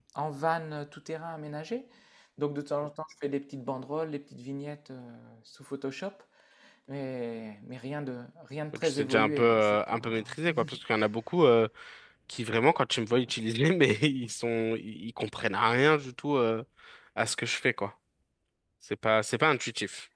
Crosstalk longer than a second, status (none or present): present